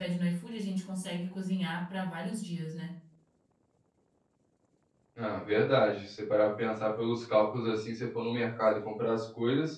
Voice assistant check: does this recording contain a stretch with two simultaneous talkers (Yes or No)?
No